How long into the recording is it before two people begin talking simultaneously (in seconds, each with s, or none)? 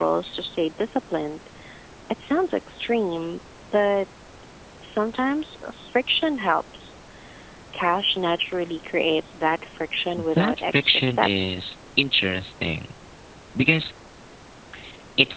10.2 s